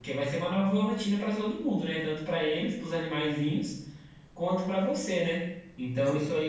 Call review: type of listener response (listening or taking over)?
listening